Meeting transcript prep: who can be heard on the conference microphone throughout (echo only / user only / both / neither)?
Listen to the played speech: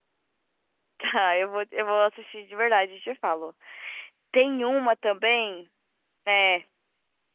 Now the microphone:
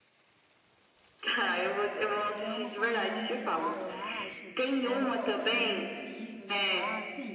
both